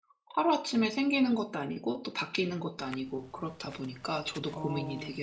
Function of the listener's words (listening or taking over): taking over